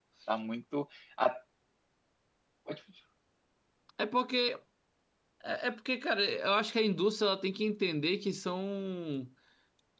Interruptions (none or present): none